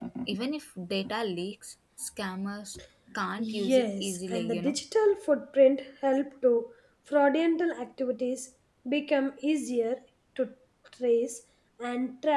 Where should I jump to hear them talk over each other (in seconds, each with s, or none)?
3.4 s